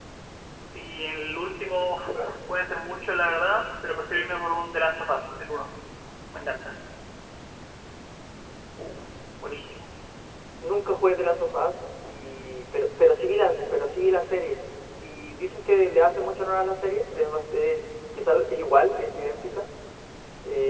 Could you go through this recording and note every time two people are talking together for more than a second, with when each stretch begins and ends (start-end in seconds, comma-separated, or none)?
none